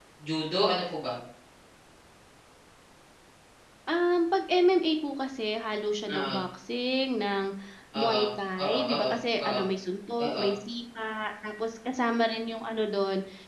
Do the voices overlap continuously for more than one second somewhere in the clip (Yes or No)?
No